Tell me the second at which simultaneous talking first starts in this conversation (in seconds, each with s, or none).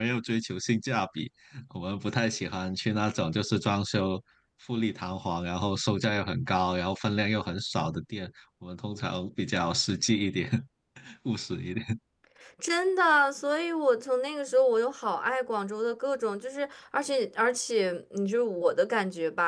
none